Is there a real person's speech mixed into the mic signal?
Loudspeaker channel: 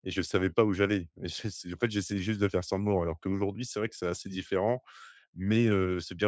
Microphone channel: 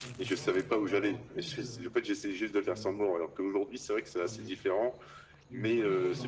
Yes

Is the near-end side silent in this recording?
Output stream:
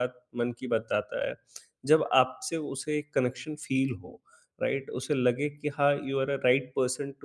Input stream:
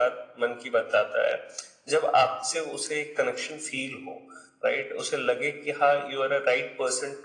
Yes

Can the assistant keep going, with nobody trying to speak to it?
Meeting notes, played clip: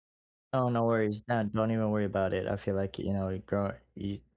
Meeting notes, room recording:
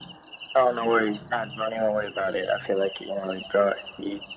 Yes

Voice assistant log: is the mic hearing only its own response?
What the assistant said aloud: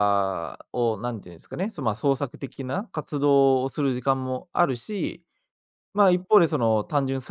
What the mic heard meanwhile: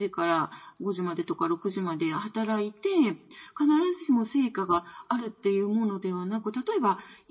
No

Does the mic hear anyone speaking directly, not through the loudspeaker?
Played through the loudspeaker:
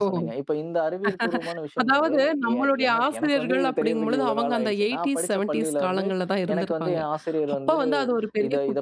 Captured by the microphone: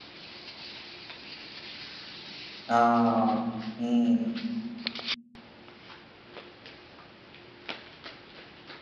Yes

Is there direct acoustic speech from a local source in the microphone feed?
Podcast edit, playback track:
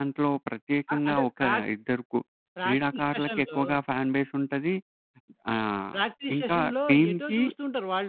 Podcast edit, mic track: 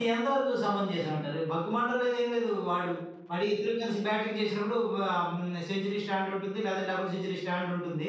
Yes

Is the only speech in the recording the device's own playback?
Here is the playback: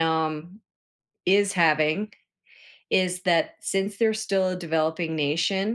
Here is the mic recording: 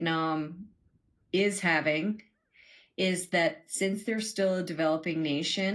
Yes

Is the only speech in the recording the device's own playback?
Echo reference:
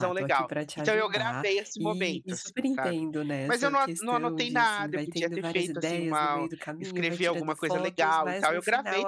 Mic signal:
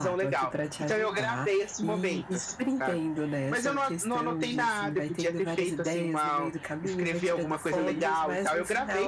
No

